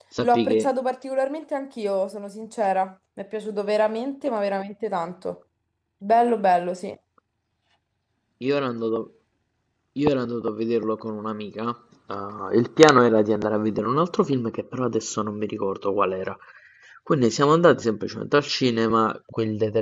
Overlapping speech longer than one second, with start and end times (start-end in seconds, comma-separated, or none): none